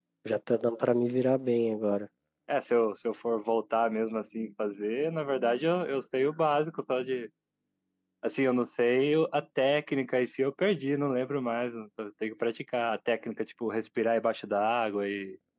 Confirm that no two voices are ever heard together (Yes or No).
Yes